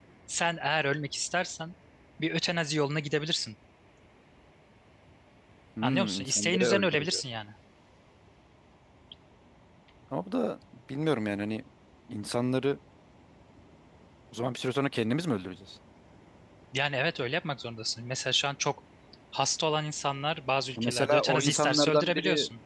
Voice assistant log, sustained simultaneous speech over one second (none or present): present